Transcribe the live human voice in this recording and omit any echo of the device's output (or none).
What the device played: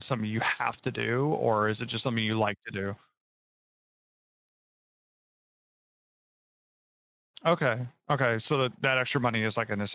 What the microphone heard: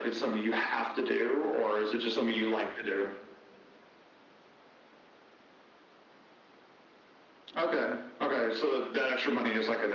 none